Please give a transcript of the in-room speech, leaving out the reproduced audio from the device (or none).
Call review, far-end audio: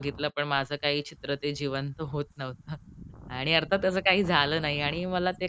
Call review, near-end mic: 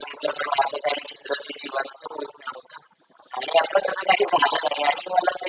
none